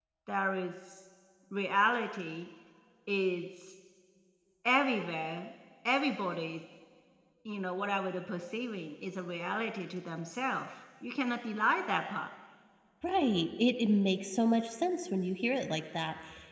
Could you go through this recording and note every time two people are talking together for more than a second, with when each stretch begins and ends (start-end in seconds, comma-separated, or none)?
none